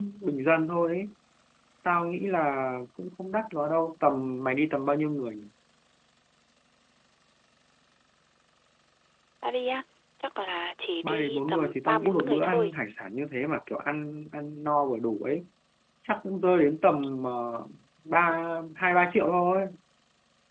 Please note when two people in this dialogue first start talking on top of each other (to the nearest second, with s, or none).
11 s